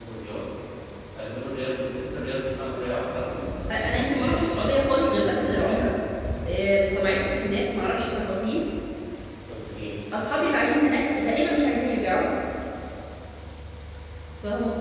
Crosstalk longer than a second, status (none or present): present